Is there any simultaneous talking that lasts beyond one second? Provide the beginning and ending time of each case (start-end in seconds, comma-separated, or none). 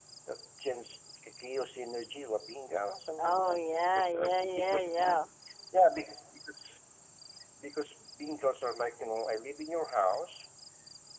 3.2-5.2